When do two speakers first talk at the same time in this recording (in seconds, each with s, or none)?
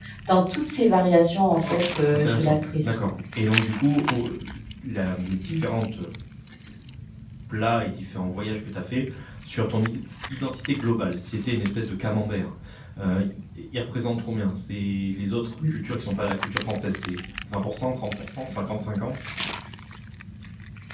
1.6 s